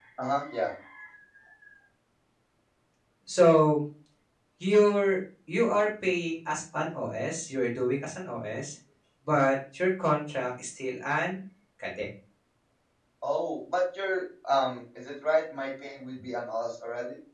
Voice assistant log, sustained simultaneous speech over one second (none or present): none